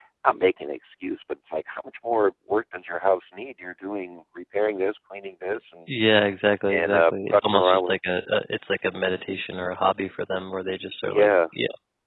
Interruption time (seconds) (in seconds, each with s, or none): 6.7 s